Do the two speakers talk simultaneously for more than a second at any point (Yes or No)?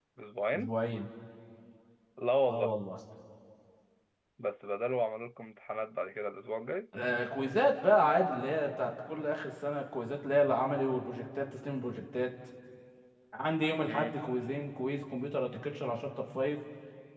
No